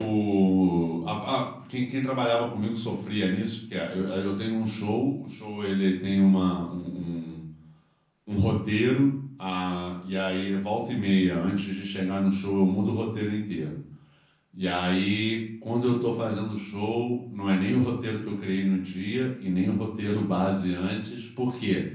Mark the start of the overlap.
none

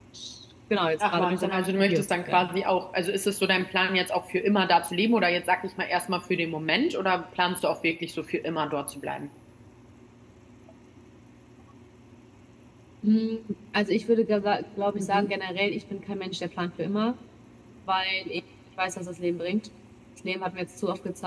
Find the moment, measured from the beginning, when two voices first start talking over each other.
1 s

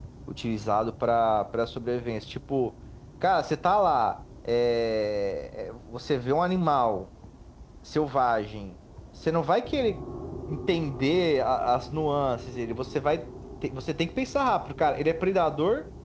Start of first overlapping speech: none

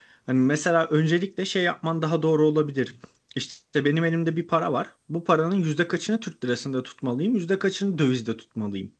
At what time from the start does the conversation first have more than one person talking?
none

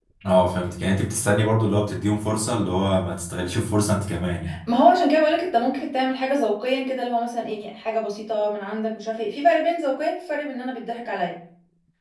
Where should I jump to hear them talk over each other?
none

